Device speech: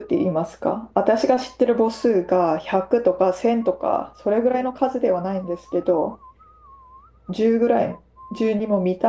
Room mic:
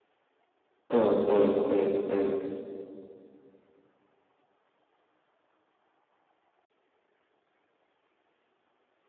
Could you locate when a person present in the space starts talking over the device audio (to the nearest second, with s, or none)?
1 s